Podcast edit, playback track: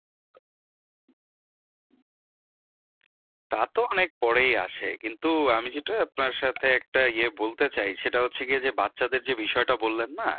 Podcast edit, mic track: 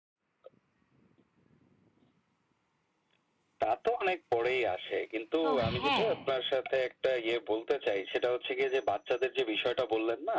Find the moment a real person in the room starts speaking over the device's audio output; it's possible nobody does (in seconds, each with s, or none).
5.4 s